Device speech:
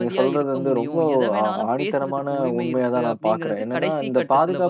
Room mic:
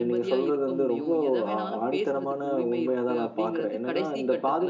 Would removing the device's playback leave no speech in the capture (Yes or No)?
Yes